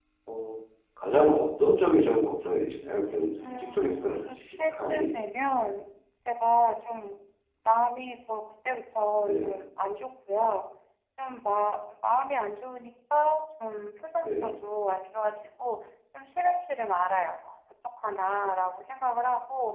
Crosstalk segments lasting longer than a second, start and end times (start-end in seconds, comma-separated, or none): 3.5-5.1